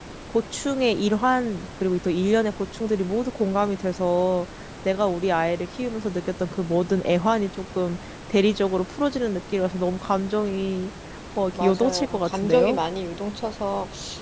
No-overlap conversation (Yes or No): No